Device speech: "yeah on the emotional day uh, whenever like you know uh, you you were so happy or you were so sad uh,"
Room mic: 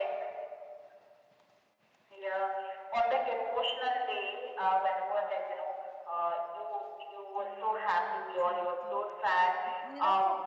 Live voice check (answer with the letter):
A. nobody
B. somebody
B